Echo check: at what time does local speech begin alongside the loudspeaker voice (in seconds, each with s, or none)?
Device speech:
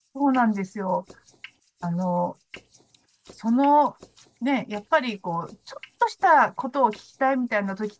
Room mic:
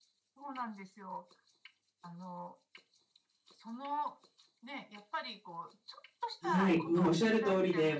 6.4 s